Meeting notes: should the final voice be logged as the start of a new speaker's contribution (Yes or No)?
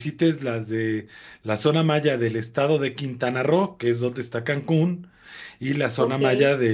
No